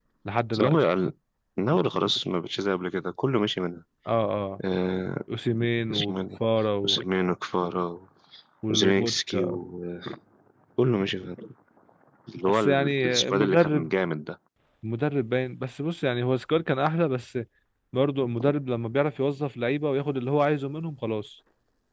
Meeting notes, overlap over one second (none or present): present